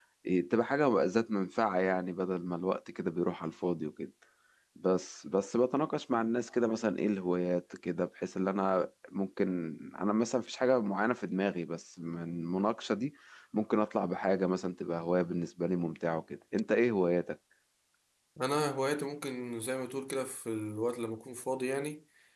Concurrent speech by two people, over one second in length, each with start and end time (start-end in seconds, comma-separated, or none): none